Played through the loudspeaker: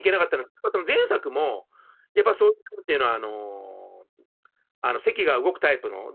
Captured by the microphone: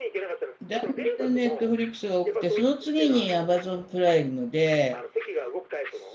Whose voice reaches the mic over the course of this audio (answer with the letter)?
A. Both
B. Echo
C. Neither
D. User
A